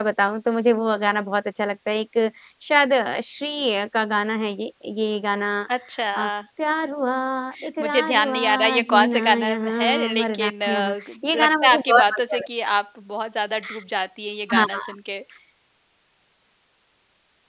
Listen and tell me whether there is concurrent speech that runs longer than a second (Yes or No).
Yes